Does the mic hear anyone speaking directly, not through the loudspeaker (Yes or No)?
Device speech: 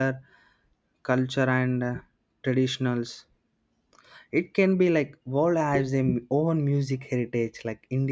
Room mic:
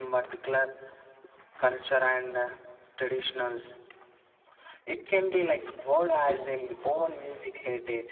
No